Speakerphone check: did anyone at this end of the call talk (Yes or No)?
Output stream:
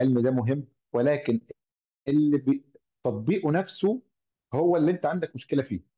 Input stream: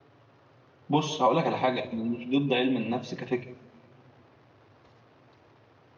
Yes